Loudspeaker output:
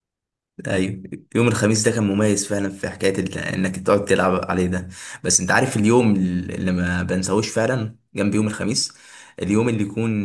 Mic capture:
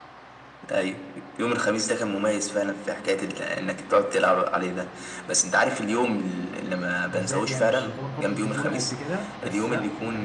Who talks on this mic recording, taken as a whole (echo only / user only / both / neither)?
both